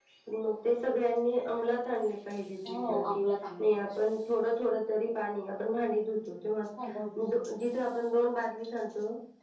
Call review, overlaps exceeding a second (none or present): none